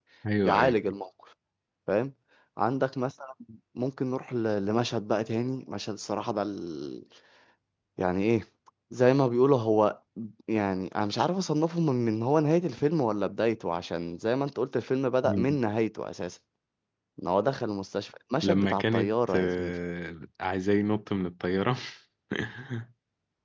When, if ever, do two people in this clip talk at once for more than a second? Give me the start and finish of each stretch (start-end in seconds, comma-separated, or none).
18.4-19.7